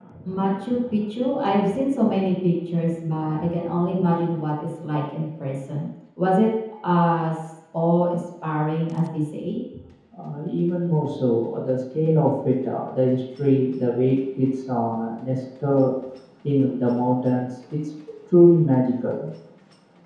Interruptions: none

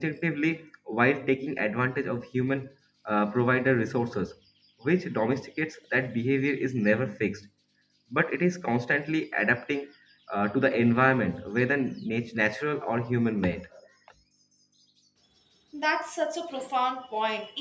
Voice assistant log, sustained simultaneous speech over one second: none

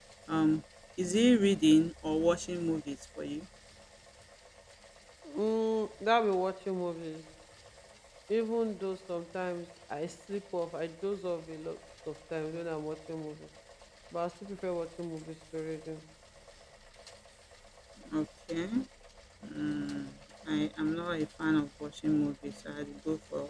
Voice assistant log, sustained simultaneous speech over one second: none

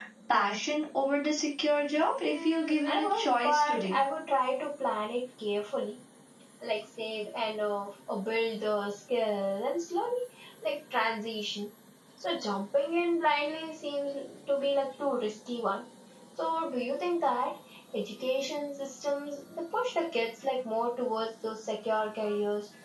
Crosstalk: present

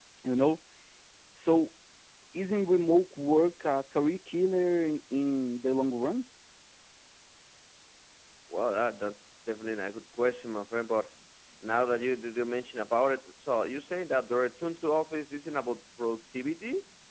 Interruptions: none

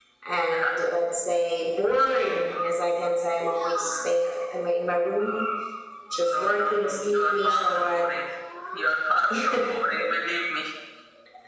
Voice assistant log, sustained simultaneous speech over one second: present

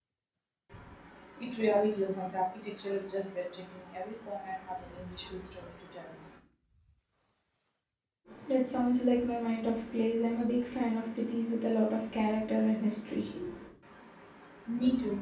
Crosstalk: none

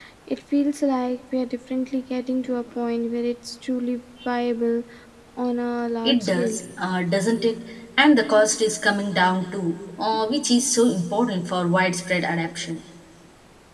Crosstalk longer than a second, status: none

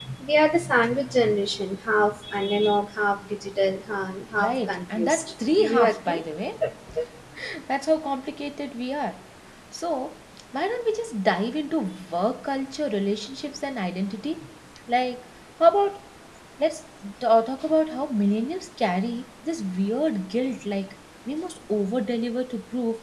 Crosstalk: present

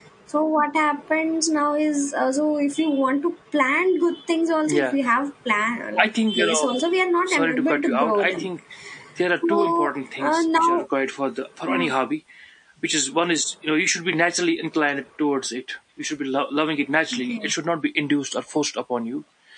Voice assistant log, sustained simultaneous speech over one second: present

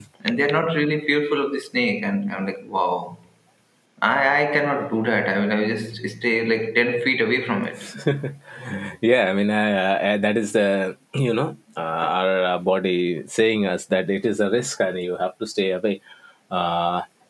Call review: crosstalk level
none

